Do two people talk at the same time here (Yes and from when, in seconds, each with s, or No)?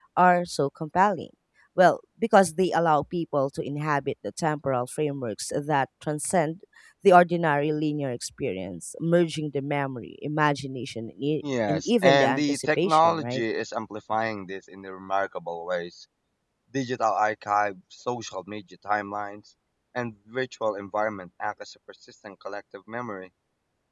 Yes, from 11.7 s